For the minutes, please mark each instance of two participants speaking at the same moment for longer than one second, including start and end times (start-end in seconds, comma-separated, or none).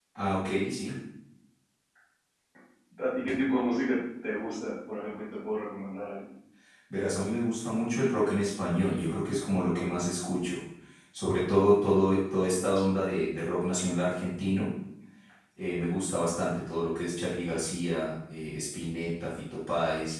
none